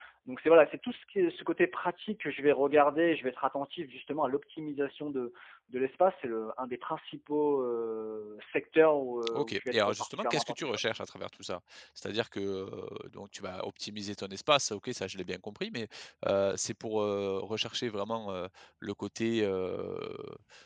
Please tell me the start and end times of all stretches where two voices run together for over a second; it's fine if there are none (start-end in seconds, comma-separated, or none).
9.3-10.7